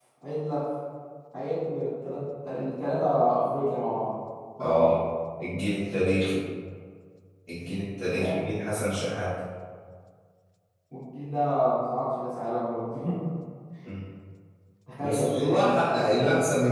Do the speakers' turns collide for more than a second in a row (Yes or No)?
Yes